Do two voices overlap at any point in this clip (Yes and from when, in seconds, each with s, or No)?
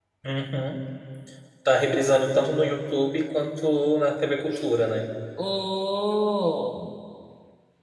No